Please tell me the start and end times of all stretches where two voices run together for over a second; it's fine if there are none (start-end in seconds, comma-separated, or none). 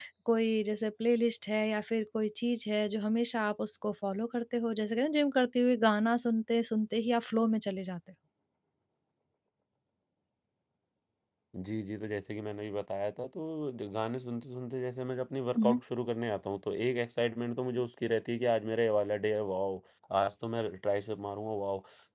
none